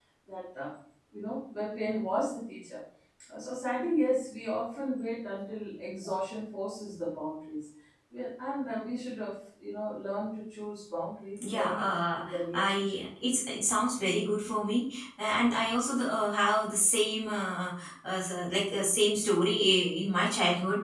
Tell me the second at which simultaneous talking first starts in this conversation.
11 s

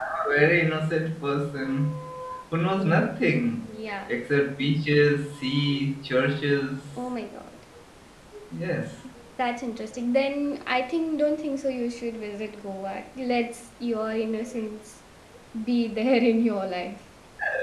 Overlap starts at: none

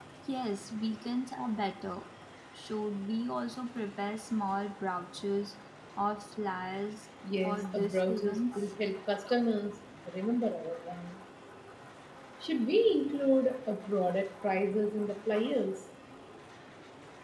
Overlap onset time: 7 s

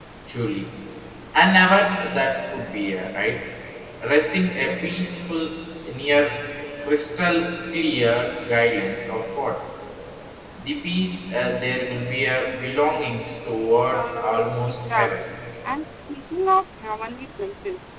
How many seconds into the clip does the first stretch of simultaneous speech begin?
14 s

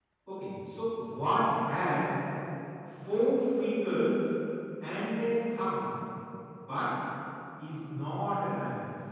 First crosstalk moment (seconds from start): none

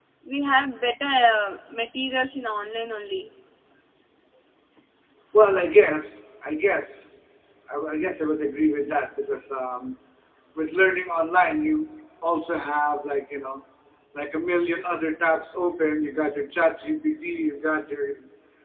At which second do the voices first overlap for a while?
none

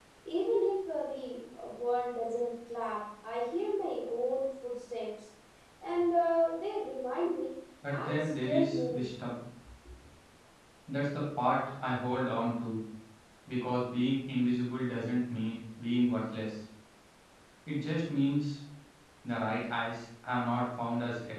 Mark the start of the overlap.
8 s

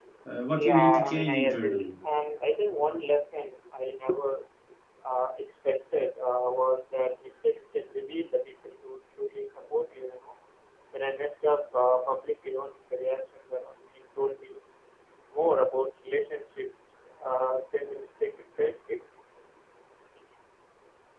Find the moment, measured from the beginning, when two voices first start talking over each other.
1 s

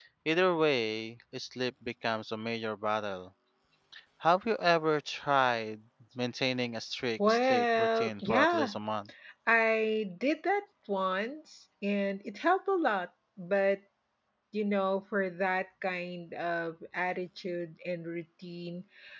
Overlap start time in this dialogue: 7 s

